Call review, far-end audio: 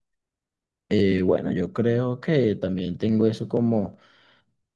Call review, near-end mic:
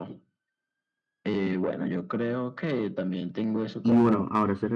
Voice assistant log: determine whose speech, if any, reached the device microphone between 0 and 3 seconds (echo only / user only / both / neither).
echo only